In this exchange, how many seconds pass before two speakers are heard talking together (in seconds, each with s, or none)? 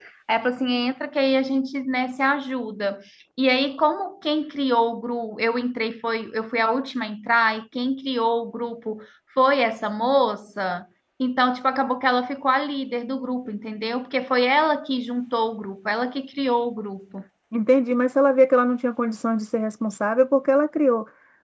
none